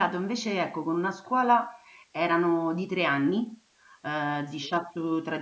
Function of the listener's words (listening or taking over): listening